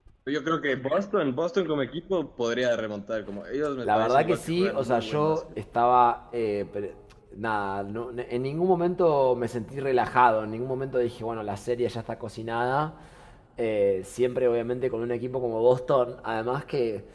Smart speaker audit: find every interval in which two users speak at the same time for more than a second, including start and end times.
3.8-5.4

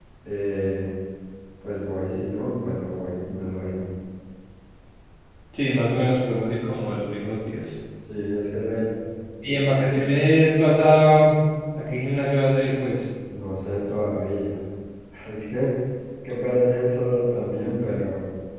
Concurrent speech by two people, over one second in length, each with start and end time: none

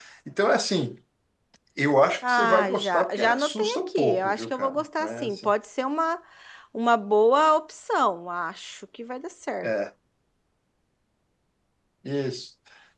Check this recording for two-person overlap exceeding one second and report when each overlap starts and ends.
2.3-5.5

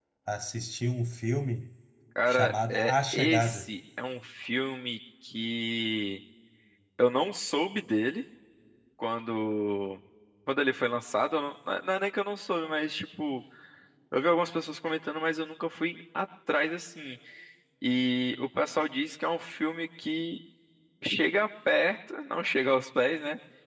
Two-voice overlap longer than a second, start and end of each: 2.3-3.7

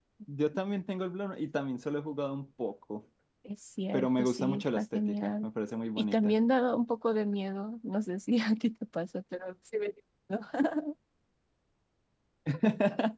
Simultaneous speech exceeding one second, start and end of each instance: 3.9-5.5

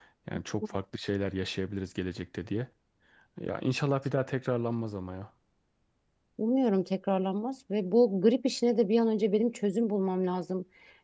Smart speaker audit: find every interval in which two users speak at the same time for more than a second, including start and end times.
none

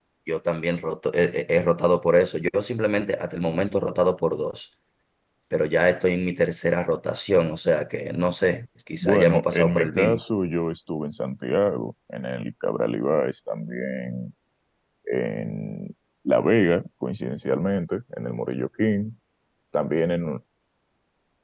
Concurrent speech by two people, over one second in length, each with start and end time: 9.0-10.2

